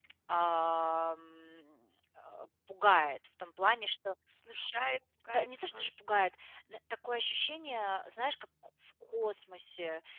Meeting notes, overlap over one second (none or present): none